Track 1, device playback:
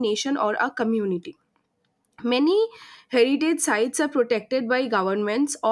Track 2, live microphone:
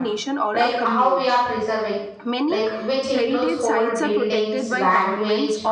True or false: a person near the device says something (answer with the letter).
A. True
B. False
A